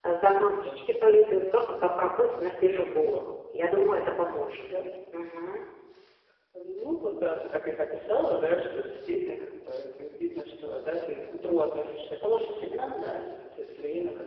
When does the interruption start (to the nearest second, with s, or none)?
none